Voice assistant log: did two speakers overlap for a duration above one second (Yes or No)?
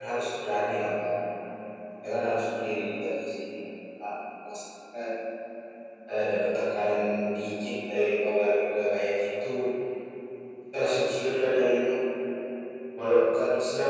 No